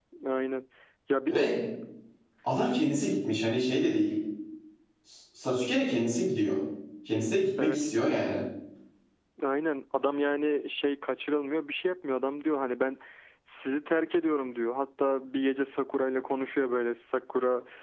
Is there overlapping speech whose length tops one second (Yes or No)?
No